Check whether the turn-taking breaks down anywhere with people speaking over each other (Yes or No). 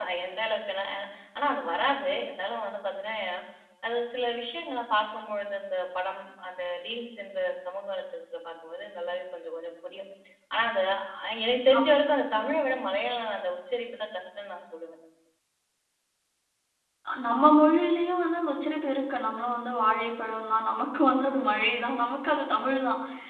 No